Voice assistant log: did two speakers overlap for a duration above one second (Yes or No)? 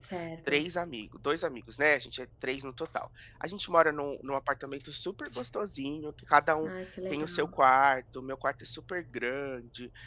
No